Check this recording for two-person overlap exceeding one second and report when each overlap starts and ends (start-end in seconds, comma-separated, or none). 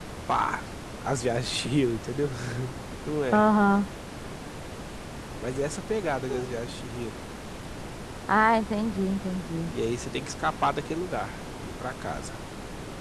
none